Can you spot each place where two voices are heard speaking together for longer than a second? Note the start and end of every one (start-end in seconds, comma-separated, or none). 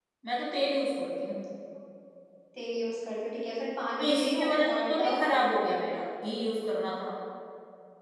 4.0-5.7